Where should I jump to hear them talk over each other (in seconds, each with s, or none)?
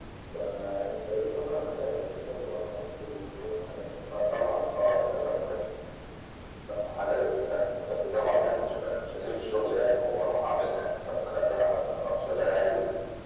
4.1 s